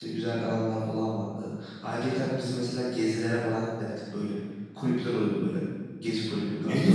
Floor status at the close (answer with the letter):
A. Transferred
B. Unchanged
A